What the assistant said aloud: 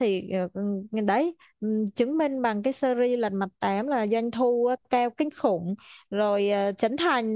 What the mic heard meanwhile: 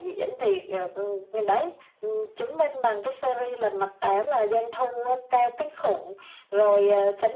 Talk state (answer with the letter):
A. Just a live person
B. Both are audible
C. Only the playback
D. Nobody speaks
C